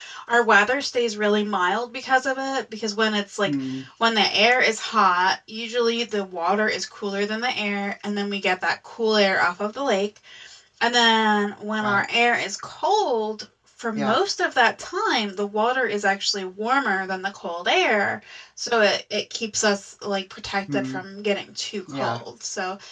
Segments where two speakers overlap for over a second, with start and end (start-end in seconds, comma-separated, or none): none